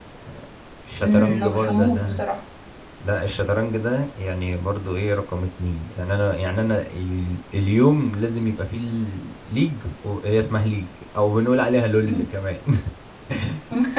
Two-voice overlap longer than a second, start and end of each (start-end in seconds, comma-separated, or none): 1.0-2.2